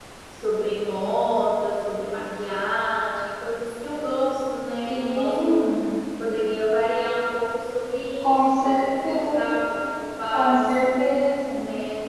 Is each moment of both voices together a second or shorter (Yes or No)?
No